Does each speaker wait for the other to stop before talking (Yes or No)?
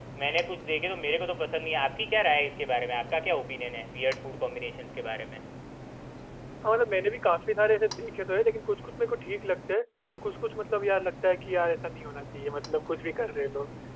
Yes